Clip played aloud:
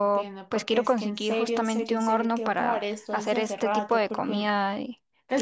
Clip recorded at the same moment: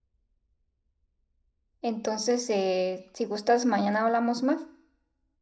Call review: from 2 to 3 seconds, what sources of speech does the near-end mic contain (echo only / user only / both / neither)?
user only